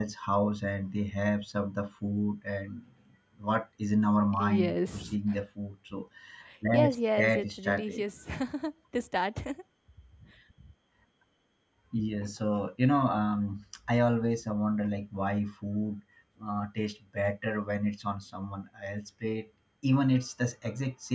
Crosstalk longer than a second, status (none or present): present